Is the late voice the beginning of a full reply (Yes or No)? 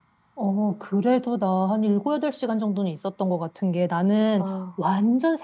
No